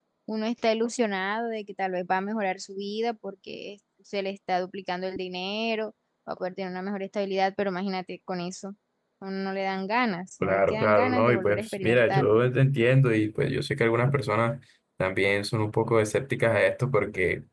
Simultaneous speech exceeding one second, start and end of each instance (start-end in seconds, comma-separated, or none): 10.4-12.2